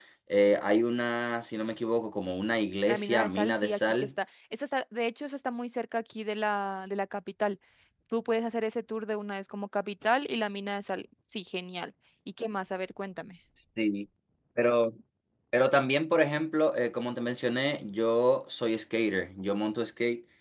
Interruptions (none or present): present